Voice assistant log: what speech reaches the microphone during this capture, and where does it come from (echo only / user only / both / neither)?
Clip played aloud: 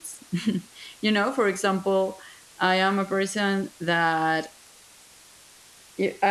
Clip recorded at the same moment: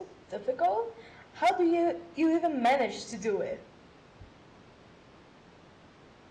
user only